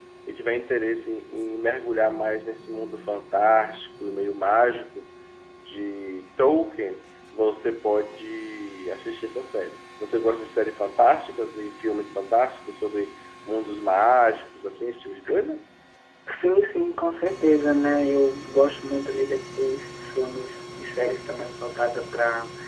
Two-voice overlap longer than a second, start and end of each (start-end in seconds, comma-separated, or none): none